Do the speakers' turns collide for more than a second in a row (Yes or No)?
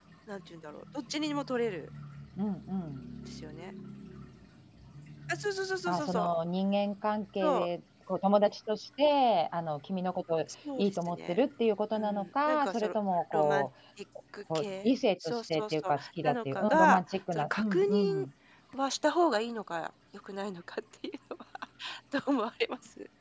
Yes